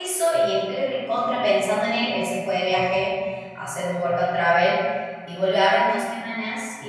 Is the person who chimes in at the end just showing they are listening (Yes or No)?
Yes